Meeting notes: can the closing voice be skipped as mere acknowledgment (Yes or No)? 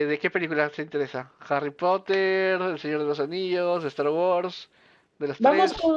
No